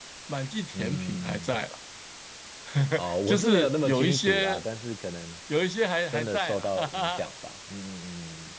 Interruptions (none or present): present